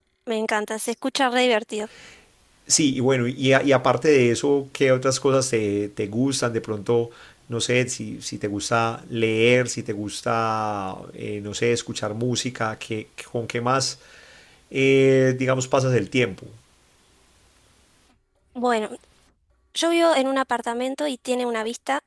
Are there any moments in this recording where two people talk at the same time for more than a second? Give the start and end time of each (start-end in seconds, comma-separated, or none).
none